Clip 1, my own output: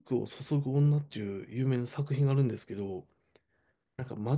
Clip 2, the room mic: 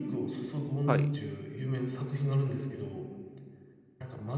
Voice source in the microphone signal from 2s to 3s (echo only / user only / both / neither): echo only